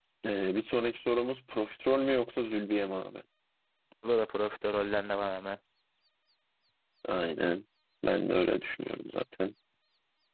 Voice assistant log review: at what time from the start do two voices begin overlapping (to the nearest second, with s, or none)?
none